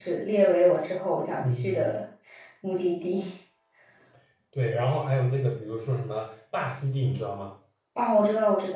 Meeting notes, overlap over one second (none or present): none